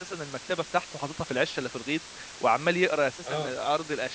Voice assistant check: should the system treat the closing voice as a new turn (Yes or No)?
No